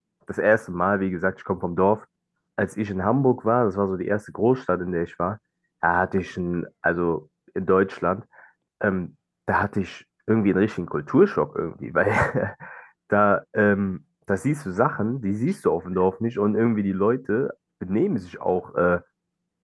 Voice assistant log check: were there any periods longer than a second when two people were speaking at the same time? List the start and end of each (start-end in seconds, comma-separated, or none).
none